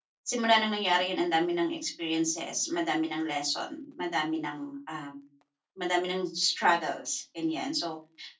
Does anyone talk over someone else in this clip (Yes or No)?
No